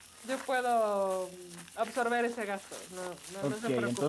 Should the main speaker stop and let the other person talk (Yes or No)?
Yes